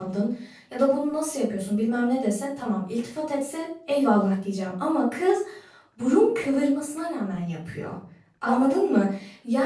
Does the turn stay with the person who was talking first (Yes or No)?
Yes